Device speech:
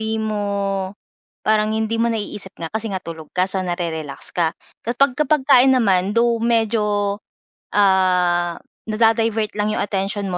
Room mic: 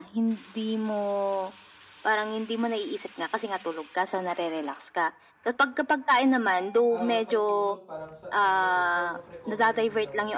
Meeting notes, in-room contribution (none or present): present